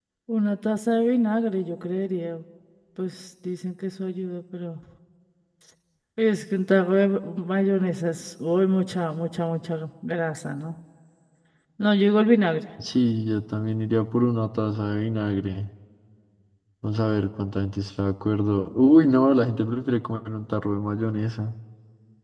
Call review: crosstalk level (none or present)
none